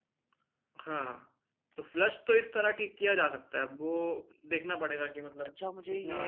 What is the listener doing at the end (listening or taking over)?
taking over